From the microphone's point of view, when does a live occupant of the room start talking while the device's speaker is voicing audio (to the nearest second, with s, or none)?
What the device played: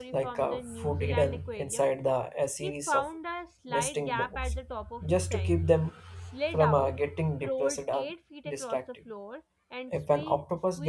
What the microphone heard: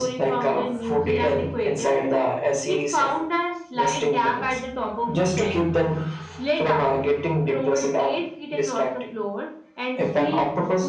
none